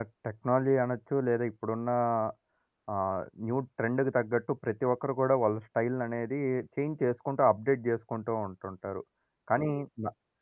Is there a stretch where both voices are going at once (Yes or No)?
No